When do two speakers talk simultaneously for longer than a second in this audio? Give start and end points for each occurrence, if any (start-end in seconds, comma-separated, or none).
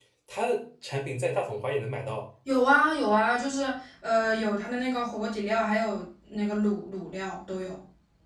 none